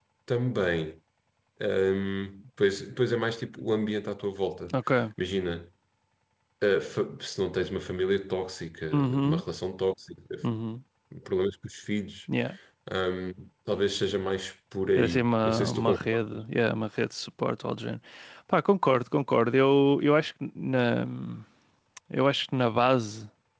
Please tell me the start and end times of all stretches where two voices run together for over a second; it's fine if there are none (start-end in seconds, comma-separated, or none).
15.0-16.4